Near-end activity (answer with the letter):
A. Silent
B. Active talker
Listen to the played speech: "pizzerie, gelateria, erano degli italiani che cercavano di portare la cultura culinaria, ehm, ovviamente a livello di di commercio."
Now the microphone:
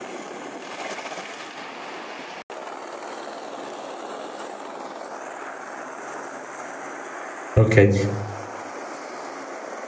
B